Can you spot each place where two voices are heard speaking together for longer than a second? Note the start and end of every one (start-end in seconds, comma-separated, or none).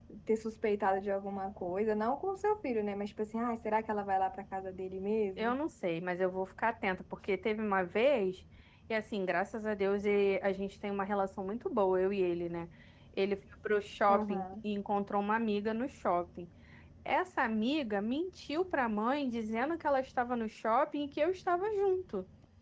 none